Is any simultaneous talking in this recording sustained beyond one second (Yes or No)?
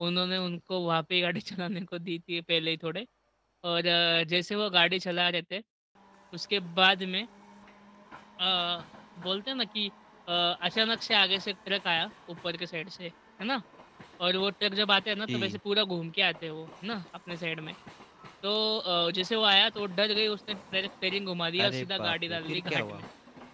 Yes